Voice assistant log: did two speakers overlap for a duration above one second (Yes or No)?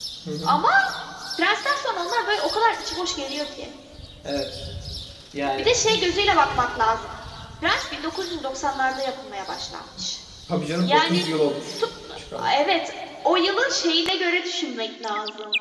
No